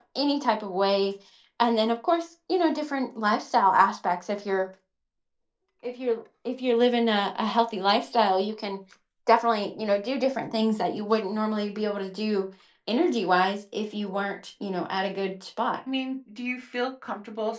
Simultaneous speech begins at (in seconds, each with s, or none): none